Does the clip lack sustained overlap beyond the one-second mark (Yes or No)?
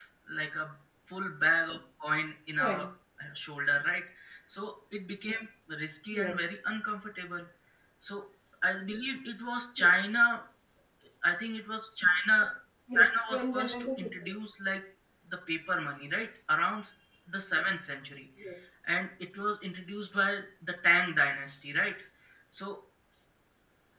No